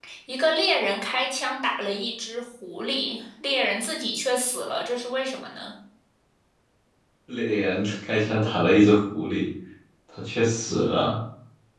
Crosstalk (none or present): none